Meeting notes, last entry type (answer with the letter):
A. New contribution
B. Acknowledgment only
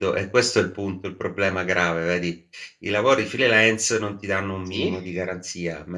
B